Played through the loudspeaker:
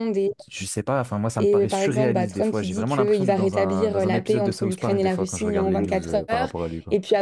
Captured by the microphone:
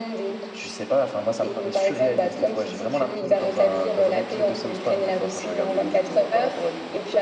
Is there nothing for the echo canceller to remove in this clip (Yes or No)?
No